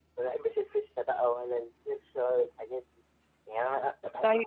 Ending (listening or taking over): listening